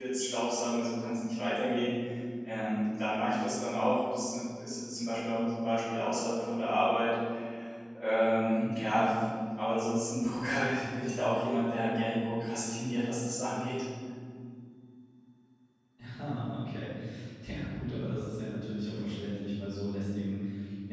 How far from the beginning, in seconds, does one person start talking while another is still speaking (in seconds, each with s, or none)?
none